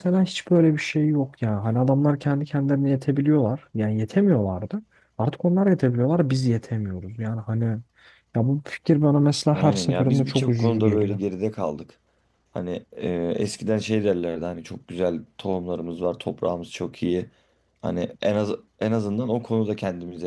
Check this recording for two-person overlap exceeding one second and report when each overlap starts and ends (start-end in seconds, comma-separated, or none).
9.6-11.2